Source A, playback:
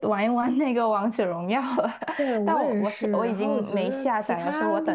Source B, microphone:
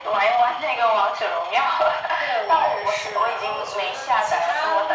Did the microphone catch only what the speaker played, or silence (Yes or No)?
Yes